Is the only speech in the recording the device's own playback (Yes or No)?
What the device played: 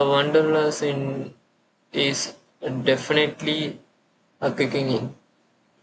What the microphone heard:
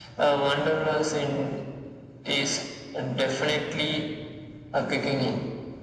Yes